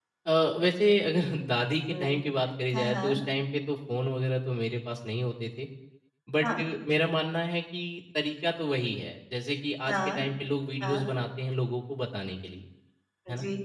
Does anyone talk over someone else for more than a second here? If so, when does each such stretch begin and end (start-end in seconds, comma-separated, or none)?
none